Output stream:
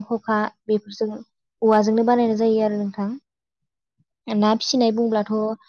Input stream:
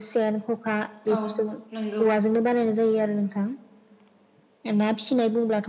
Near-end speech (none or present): present